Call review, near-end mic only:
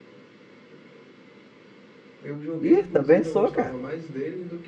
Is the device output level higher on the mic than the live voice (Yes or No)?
No